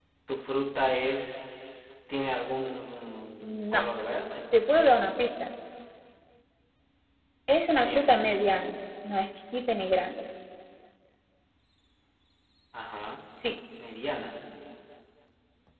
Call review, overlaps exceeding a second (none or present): none